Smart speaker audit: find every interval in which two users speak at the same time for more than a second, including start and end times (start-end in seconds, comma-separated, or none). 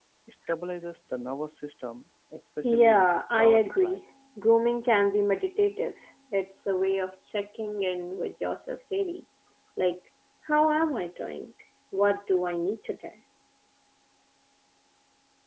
2.6-4.0